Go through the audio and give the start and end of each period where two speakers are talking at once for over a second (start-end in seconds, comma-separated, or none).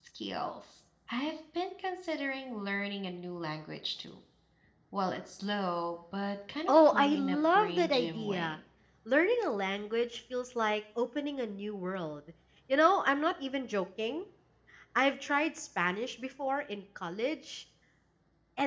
6.7-8.6